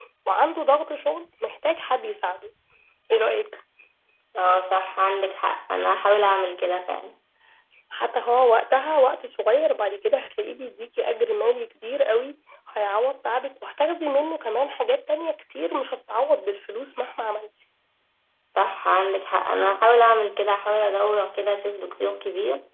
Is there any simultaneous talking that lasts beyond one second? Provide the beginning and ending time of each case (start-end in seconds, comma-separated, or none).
none